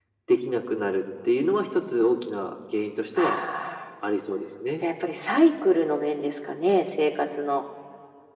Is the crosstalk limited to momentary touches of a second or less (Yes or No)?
Yes